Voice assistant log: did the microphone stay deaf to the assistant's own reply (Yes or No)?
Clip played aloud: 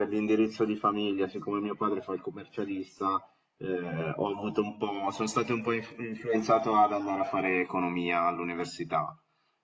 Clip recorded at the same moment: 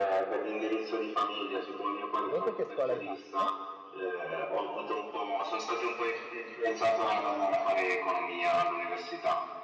No